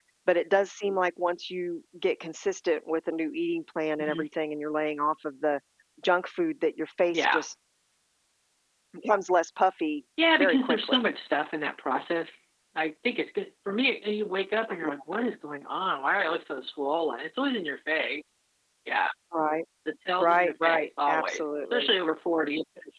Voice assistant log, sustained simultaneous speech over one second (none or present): present